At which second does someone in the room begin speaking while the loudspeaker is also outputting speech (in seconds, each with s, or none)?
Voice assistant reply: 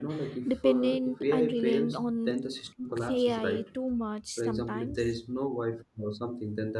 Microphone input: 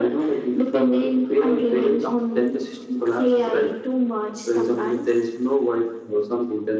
none